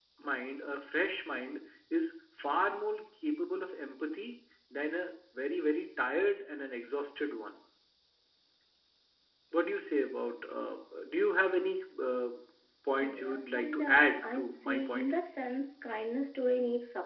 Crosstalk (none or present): present